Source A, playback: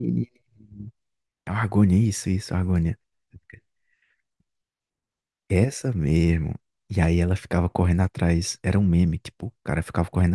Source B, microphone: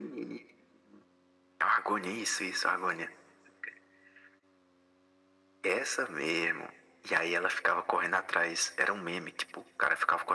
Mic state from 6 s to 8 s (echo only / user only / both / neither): echo only